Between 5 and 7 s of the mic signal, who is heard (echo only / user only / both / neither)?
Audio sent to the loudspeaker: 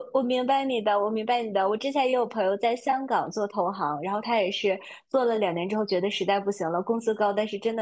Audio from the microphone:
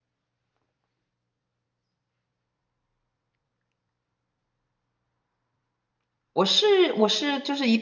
user only